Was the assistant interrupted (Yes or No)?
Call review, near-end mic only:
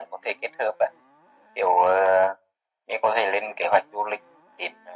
No